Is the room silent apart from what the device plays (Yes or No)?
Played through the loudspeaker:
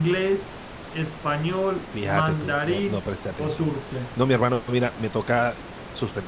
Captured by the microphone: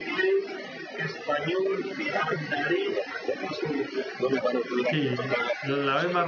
No